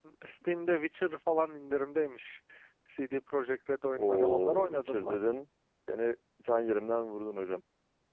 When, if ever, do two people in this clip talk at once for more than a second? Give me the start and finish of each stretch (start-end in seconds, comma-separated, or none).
3.9-5.2